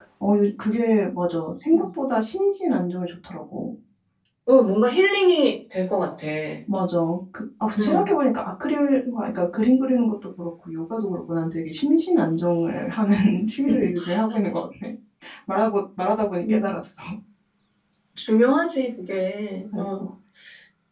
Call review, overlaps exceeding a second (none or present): none